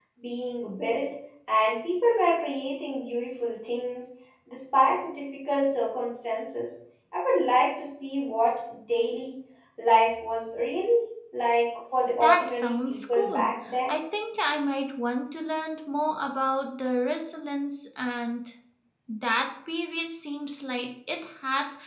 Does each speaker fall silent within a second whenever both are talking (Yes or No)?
No